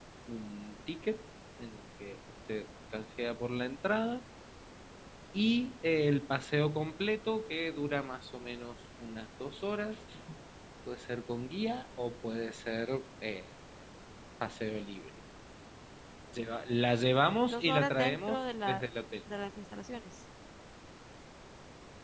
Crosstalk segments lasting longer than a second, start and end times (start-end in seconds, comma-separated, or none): 17.4-18.8